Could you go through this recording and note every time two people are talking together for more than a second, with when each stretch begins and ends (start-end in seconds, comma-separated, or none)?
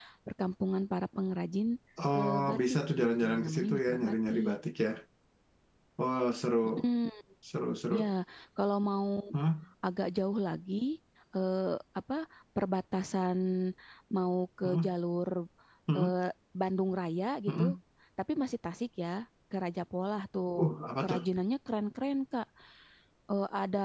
2.2-4.6